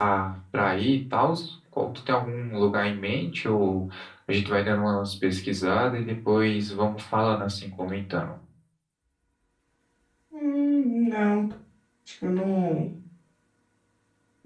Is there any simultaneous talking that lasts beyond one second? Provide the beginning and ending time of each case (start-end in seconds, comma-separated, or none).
none